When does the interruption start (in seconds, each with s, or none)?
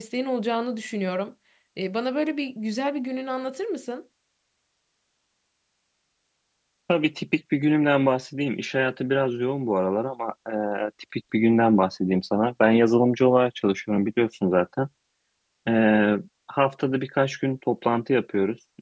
none